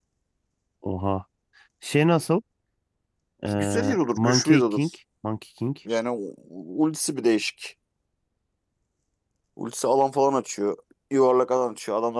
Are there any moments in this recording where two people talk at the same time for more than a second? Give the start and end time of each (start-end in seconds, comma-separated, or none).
3.5-4.9